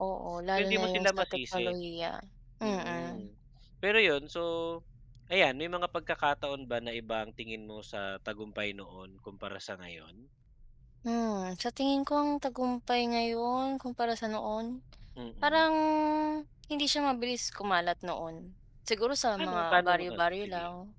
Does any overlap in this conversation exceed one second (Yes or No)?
Yes